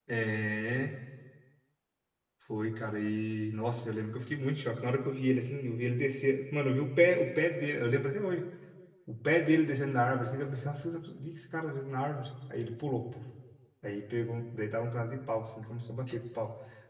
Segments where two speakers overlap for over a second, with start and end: none

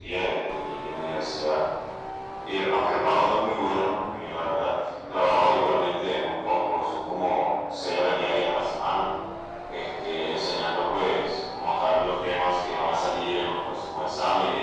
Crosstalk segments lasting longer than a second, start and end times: none

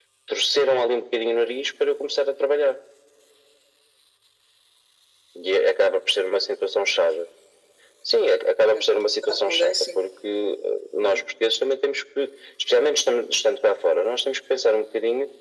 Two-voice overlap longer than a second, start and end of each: 8.7-10.0

